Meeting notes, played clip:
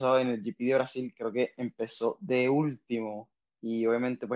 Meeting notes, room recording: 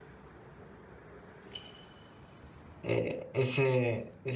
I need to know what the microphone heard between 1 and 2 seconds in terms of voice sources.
neither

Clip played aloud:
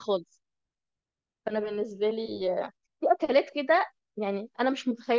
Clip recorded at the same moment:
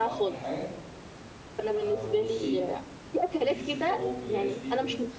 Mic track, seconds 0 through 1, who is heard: both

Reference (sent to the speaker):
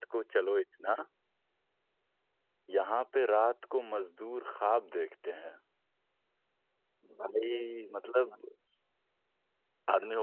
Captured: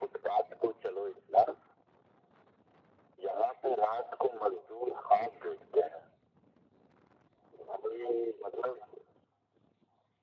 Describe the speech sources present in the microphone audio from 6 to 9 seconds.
echo only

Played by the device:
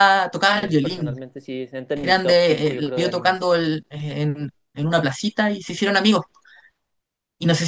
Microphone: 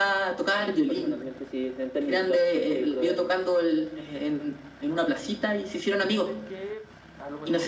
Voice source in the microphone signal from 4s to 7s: both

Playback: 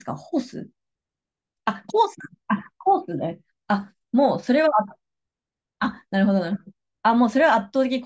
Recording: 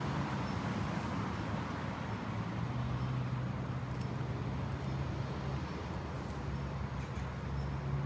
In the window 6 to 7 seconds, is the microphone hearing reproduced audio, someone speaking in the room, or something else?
neither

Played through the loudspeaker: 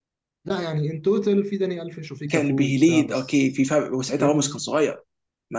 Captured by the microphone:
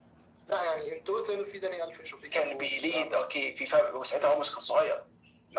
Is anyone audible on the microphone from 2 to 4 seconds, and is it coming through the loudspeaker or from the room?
echo only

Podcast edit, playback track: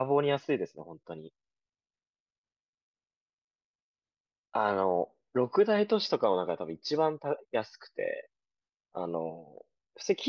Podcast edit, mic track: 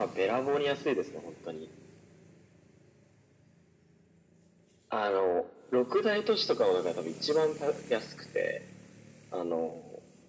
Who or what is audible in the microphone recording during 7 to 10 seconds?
echo only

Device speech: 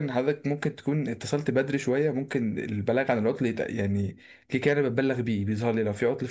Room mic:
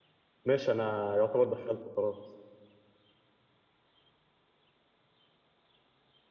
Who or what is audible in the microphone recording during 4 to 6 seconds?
neither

